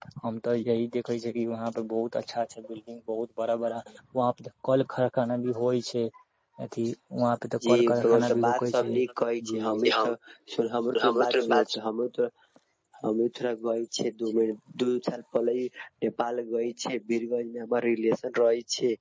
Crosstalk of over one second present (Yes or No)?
Yes